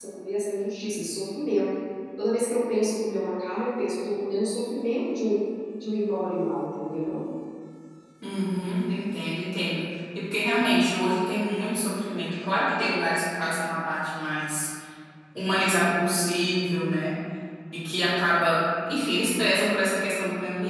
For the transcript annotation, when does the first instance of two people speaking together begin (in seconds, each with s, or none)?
none